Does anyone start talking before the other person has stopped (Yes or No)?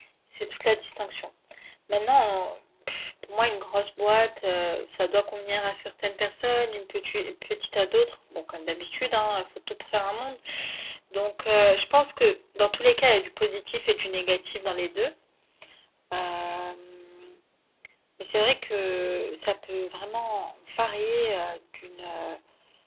No